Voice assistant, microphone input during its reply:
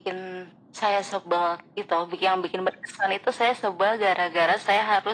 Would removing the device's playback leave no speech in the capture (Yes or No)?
Yes